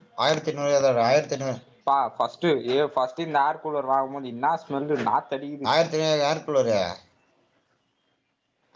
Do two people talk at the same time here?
No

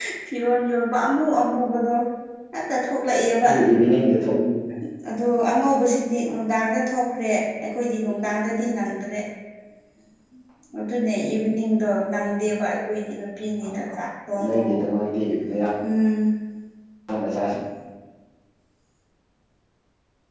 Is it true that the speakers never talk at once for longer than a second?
Yes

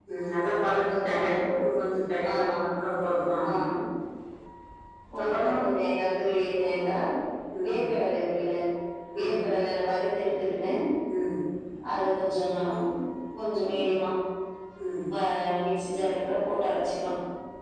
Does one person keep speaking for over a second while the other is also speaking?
No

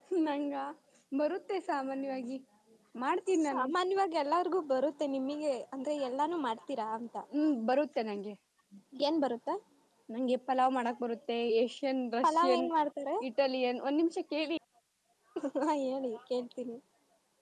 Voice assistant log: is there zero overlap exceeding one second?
Yes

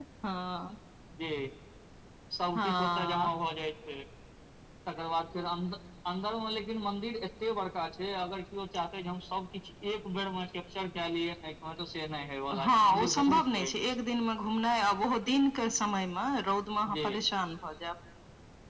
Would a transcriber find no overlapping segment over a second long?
No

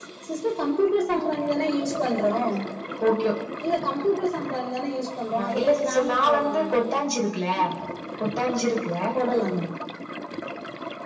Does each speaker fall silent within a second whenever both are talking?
No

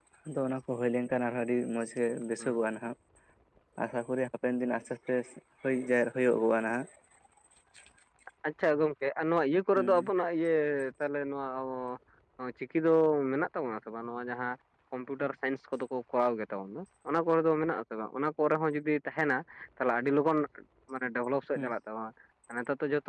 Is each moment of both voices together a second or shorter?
Yes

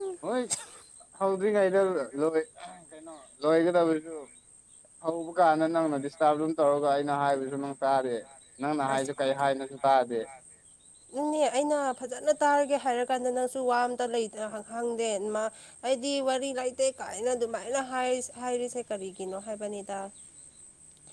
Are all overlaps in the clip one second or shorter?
Yes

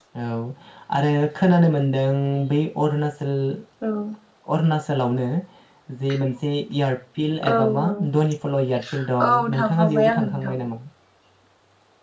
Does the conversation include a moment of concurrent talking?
Yes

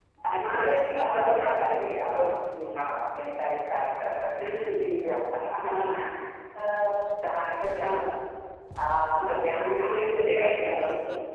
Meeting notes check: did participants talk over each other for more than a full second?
Yes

